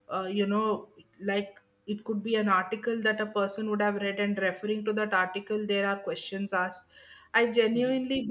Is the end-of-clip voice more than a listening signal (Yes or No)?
No